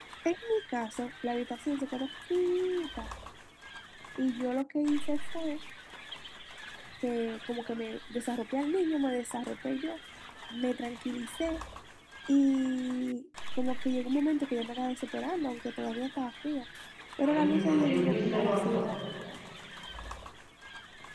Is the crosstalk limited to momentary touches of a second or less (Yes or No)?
No